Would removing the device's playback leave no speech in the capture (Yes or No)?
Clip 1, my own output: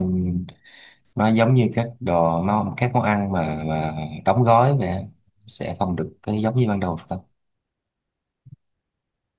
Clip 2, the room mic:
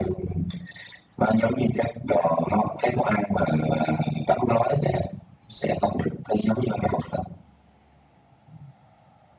Yes